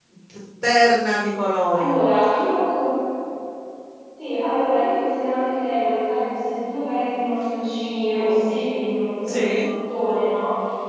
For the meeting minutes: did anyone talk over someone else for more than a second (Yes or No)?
No